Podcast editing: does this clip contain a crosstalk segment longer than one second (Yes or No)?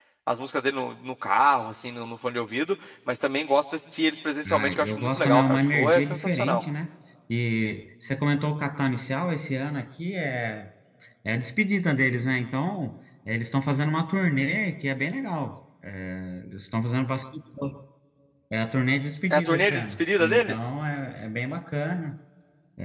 Yes